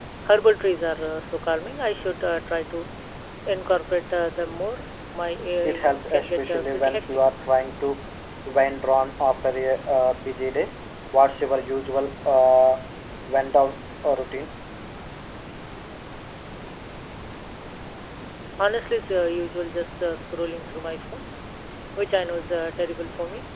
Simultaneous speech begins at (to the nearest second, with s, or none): 6 s